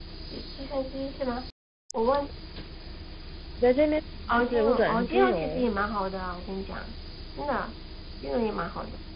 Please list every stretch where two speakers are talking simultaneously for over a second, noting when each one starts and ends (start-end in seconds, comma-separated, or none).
4.3-5.7